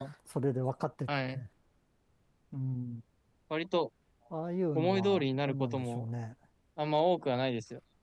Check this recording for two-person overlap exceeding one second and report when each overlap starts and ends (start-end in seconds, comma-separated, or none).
4.8-6.0